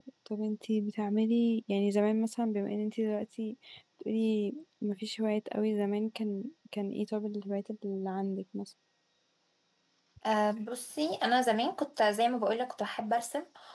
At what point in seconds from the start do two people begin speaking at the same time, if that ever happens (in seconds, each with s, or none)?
none